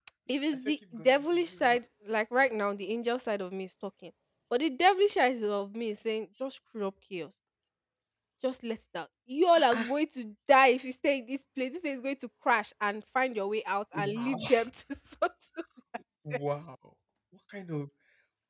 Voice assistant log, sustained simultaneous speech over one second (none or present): present